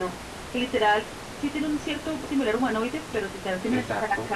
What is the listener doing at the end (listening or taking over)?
listening